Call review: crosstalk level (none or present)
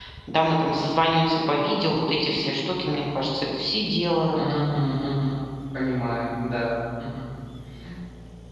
none